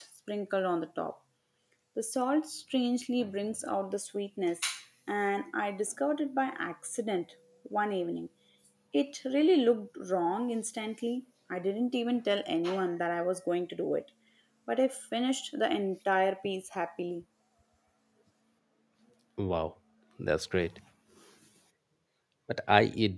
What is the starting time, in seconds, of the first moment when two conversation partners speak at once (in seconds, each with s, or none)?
none